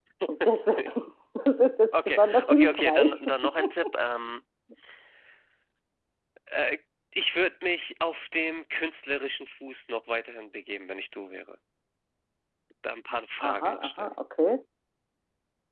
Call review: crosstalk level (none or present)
present